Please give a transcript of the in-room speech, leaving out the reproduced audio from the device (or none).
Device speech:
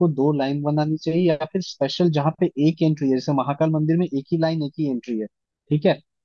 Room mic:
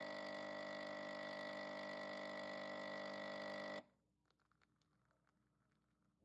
none